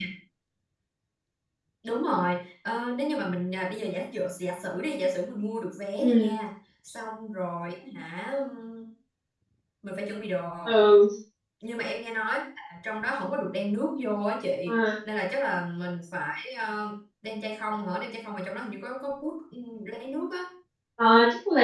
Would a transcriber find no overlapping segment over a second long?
Yes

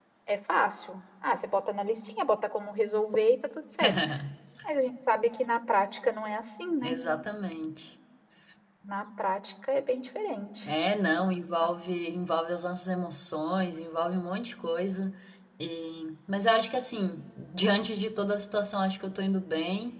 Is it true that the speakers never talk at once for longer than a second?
Yes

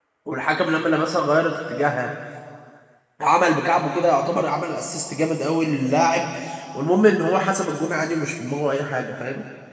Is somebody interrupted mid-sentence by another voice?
No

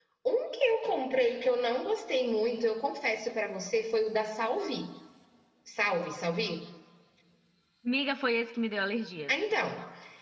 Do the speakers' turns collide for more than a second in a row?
No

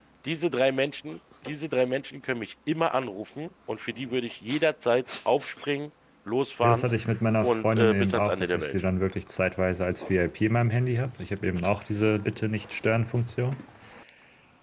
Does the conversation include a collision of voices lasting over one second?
Yes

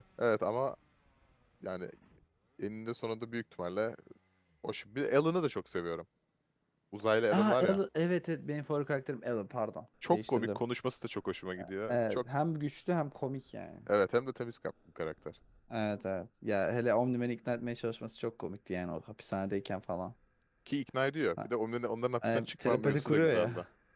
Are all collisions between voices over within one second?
No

